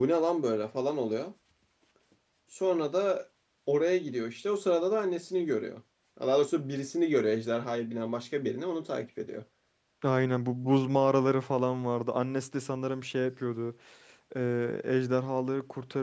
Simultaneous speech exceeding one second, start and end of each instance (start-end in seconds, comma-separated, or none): none